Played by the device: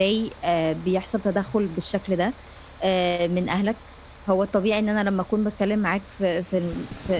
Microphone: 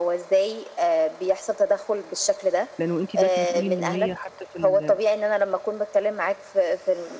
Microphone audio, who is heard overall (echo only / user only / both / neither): both